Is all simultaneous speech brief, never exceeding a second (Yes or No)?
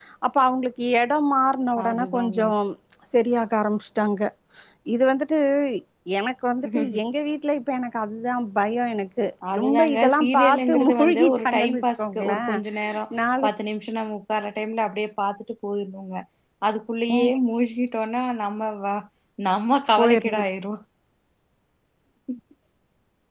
No